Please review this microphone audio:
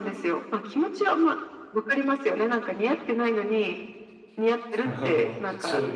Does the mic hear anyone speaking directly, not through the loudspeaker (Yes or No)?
Yes